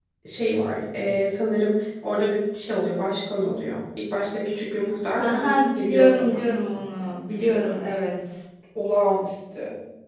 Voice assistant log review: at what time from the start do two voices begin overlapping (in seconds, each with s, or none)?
5.2 s